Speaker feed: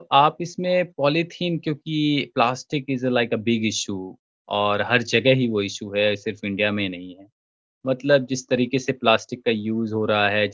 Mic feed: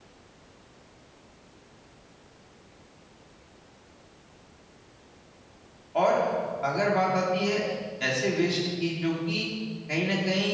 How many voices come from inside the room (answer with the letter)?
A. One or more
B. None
A